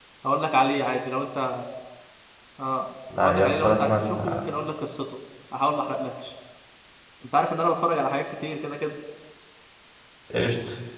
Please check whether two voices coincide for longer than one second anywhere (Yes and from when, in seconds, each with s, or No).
Yes, from 3.2 s